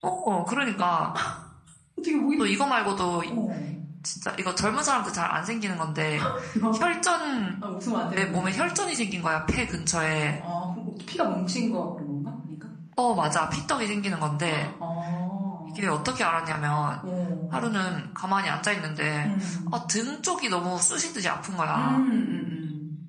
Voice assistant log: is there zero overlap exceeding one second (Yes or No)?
Yes